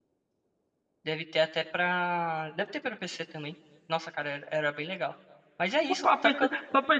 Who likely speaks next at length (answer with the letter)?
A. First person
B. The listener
B